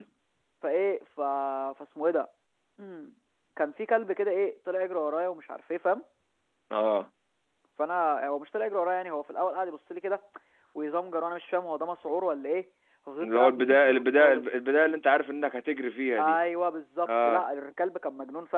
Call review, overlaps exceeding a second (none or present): present